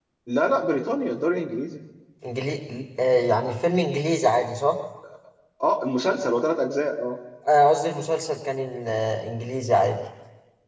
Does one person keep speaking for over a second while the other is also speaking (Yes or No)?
No